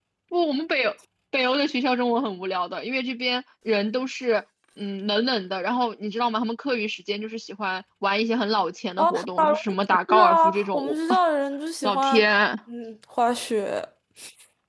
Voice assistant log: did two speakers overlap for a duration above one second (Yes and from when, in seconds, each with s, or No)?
Yes, from 9.0 s